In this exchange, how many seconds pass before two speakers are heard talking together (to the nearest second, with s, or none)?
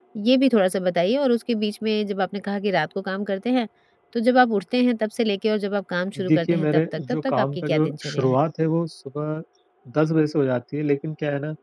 6 s